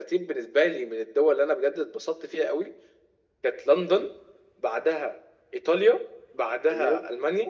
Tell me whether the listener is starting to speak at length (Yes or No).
No